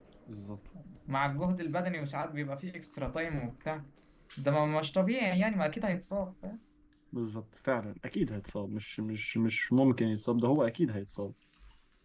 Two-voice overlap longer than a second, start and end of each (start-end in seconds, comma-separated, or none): none